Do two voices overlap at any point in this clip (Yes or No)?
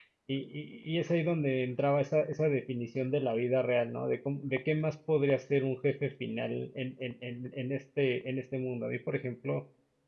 No